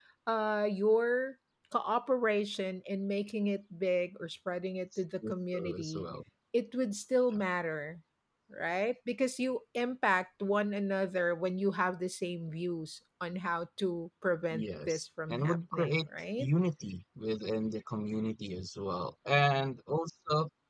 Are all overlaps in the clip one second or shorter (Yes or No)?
No